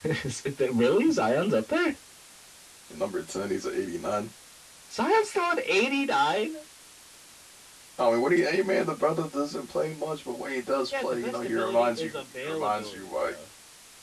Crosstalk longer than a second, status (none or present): present